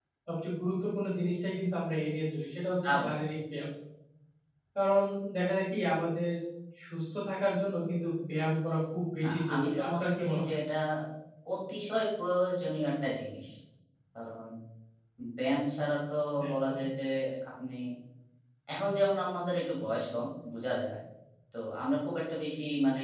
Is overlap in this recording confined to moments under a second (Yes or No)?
No